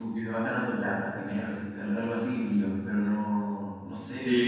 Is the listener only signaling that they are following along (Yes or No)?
No